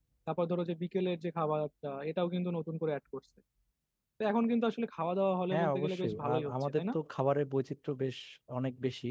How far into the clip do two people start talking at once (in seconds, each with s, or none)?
5.5 s